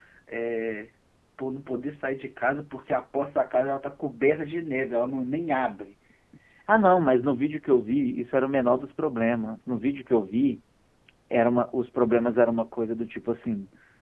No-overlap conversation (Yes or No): Yes